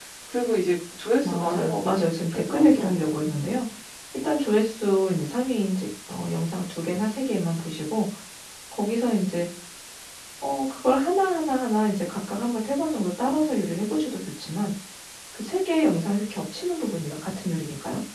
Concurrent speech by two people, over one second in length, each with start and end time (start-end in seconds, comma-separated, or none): 1.2-3.0